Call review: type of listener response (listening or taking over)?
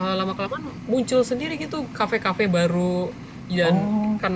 listening